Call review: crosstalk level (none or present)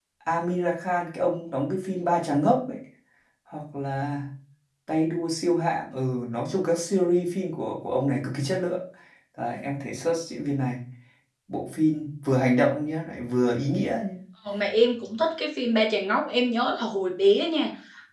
none